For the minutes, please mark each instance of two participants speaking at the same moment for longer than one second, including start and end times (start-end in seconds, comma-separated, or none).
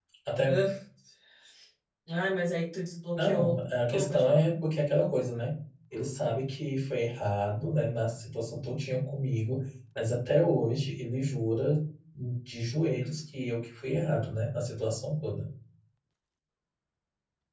3.2-4.4